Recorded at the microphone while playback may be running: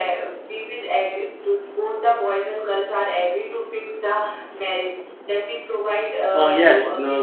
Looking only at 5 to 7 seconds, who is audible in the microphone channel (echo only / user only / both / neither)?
both